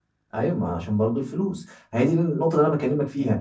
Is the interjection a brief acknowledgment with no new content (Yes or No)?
Yes